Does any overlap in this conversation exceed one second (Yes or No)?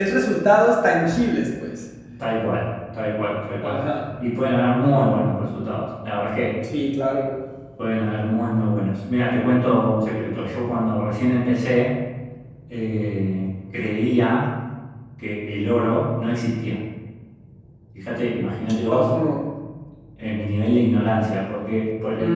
No